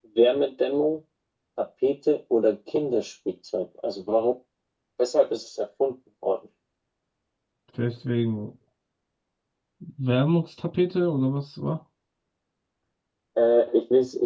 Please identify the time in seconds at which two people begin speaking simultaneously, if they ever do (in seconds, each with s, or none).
none